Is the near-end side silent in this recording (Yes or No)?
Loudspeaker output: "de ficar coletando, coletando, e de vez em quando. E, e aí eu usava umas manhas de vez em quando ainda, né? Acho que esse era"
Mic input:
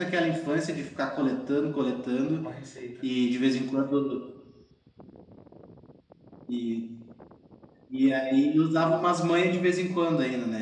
No